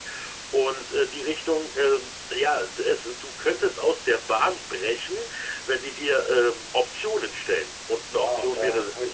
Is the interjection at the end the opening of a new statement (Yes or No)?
Yes